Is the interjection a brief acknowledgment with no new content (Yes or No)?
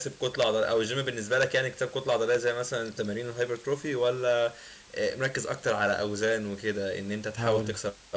Yes